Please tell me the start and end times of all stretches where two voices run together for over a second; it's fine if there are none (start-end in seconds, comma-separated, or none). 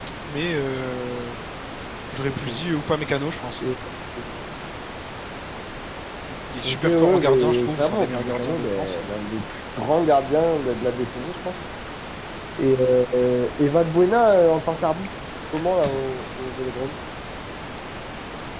6.6-9.0